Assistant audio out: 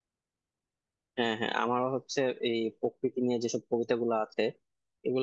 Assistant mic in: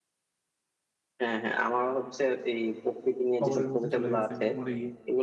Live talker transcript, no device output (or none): কবরের মধ্যে চলে গেছে মরে গিয়ে